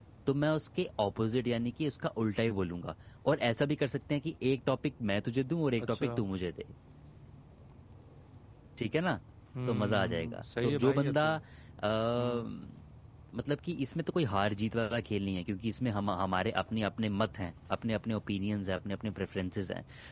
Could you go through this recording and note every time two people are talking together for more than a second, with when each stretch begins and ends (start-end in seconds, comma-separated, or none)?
9.7-11.2